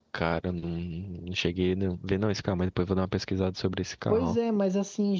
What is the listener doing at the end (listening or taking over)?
taking over